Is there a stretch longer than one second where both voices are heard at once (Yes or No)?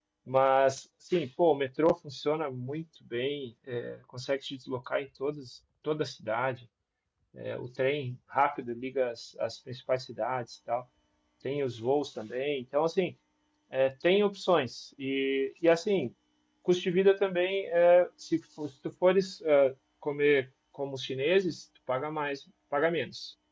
No